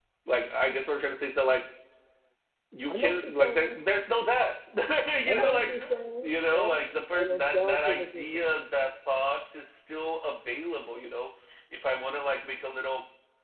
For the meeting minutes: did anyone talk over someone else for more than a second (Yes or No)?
Yes